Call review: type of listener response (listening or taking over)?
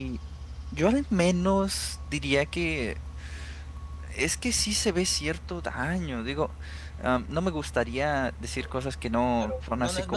taking over